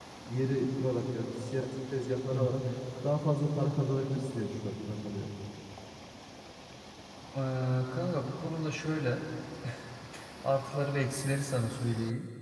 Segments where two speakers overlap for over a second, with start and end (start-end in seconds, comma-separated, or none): none